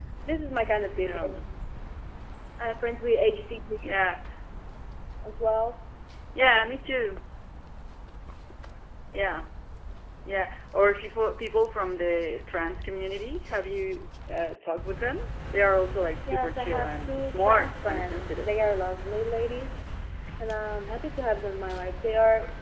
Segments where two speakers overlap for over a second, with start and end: 16.3-18.5

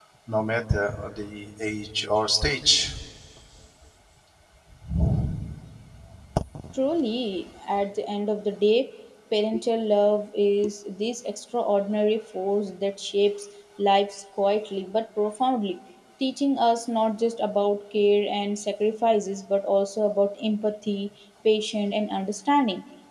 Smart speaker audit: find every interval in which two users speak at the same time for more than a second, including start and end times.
none

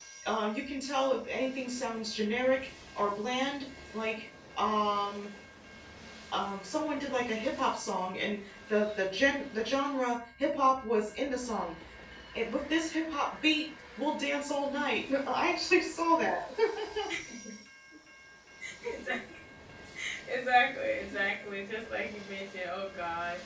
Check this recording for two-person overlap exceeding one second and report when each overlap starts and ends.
none

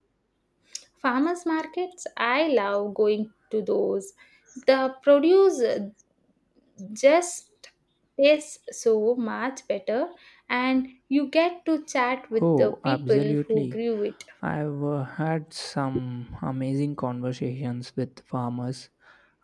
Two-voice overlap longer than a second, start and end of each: 12.4-13.8

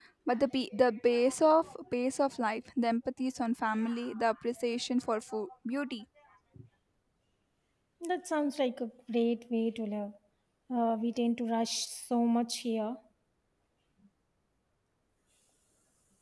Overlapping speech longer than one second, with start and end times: none

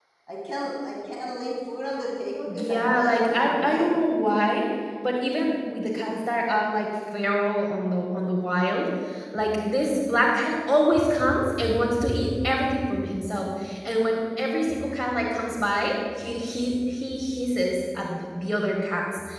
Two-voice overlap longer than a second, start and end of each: 2.5-4.0

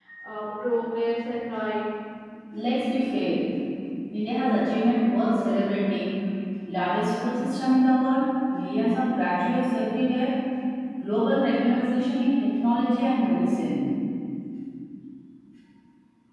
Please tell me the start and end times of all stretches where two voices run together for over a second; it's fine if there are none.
none

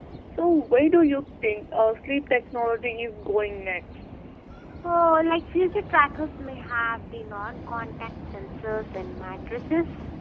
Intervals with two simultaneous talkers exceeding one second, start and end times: none

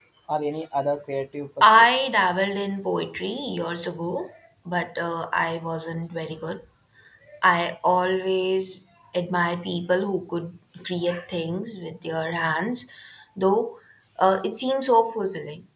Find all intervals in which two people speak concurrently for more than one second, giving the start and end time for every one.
none

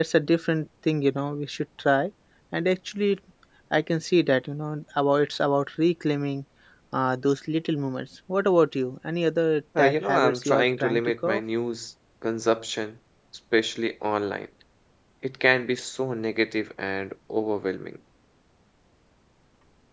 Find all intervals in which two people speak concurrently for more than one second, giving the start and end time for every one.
9.8-11.4

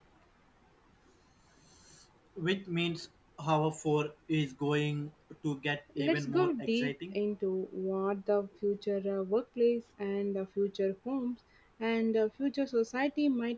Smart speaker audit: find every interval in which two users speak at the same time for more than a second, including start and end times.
6.0-7.2

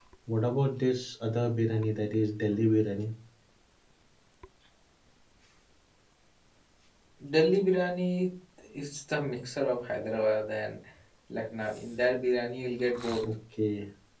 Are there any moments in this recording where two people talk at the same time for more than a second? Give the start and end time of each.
none

